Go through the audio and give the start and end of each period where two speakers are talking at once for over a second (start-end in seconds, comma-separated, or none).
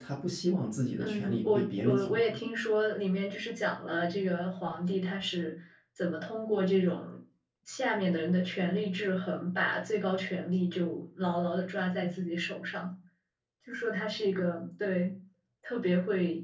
1.0-2.4